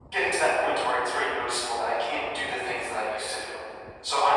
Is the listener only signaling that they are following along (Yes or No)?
Yes